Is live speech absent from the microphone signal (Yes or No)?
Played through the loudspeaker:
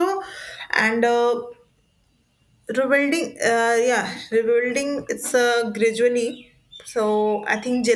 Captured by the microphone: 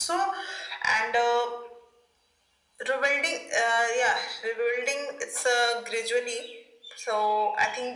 Yes